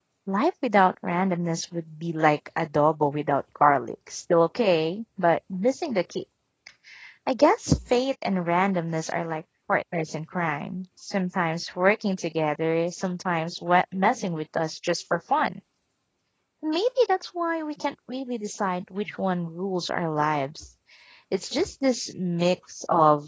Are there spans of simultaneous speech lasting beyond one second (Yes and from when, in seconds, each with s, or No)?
No